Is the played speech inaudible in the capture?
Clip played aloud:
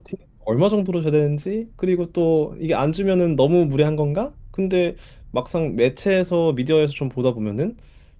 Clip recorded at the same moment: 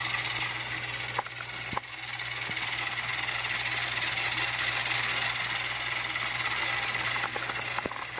Yes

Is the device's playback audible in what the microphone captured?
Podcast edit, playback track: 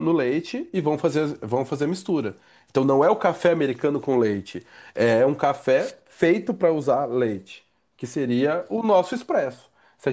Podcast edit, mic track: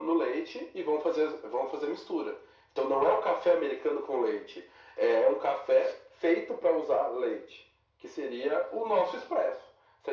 Yes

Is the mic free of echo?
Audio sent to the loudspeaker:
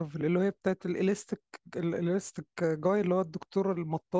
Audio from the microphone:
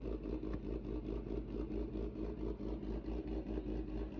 Yes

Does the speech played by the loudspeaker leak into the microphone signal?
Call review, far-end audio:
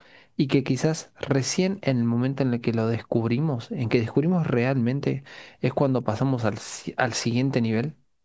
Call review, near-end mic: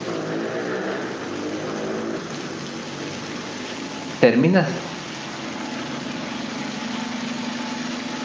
No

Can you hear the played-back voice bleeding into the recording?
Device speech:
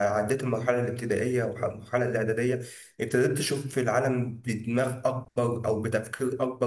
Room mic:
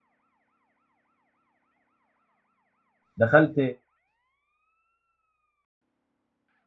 No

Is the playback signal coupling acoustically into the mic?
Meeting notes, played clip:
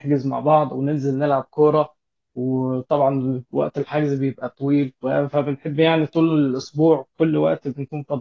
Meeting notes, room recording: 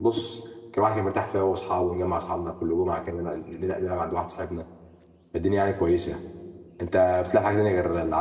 No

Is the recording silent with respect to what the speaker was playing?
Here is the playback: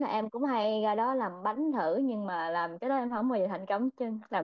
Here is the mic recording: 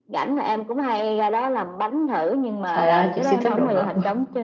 No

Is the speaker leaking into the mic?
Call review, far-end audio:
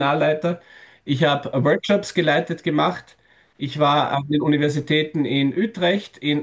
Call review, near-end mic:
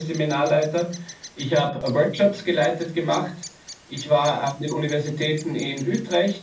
Yes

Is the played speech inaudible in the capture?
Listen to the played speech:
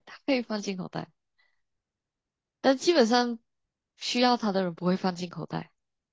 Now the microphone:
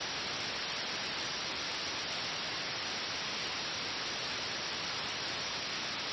Yes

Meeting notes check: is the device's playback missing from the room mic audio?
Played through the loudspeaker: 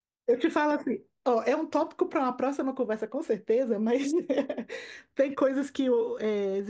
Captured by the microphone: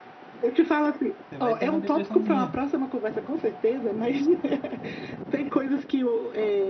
No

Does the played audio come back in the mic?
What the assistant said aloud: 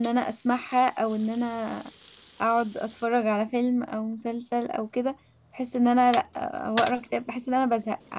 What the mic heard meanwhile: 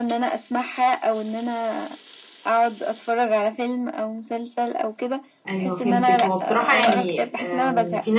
Yes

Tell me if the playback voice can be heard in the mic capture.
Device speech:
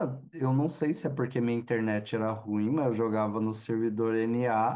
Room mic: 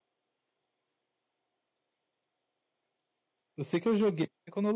No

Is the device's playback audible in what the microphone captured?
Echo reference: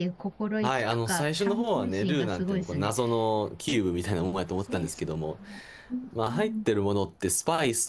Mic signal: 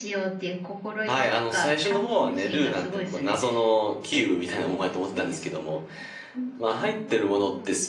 Yes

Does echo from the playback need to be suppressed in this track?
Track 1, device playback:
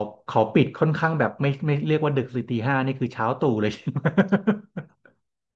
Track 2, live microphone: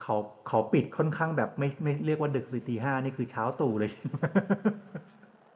Yes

